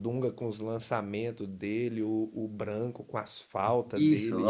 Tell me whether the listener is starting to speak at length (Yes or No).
Yes